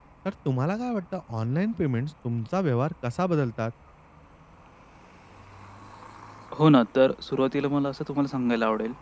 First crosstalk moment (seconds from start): none

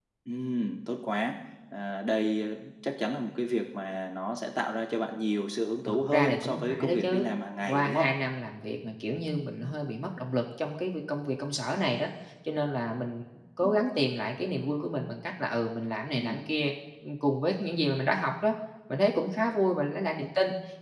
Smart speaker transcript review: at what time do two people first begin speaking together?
5.8 s

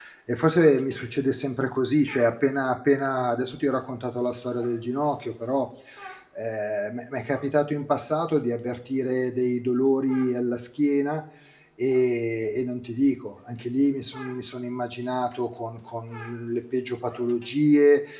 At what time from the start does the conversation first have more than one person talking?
none

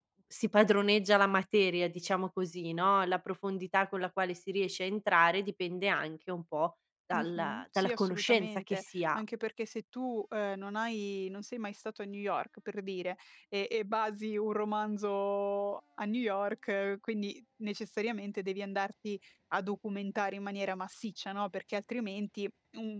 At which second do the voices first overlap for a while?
7.1 s

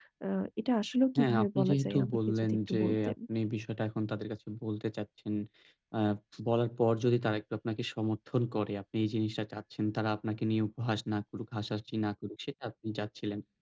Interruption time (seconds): 1.2 s

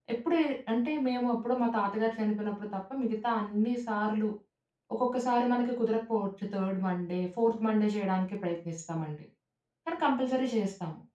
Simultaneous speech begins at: none

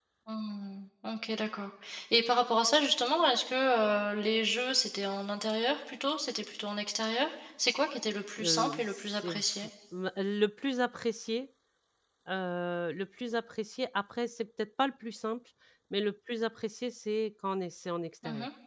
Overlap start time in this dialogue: 8.4 s

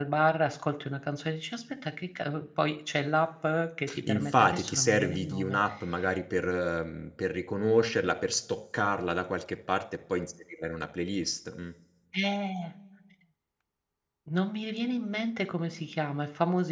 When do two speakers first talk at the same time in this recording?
3.9 s

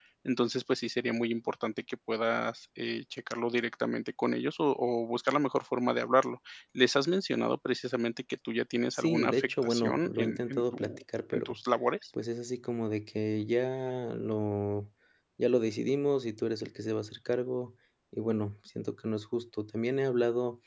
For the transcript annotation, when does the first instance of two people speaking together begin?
8.9 s

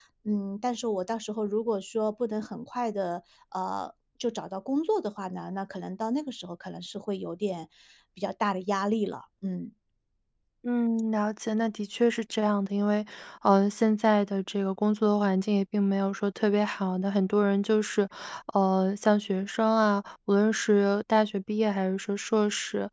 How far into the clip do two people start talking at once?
none

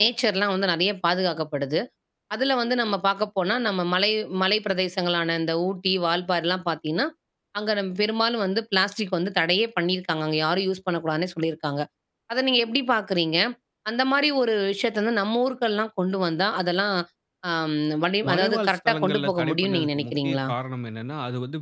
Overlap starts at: 18.3 s

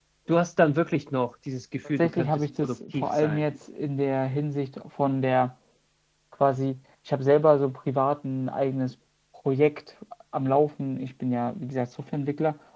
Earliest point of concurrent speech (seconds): 2.0 s

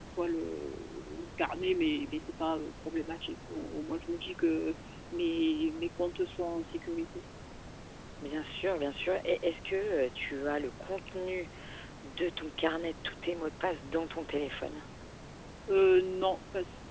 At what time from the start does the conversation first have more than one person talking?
none

